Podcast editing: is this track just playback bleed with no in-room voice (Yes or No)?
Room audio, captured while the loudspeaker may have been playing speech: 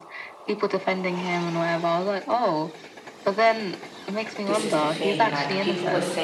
No